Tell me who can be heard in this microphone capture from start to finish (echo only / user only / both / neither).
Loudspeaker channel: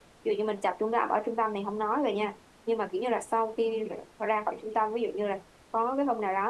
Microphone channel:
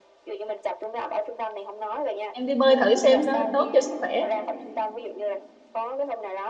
both